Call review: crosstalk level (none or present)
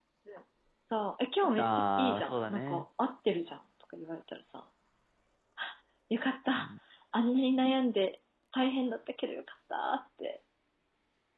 present